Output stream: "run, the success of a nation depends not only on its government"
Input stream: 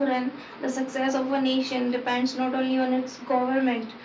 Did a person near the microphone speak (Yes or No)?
No